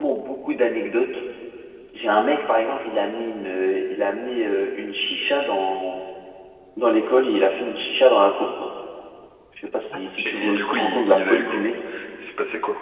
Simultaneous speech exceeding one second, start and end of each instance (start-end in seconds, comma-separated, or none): 10.4-11.6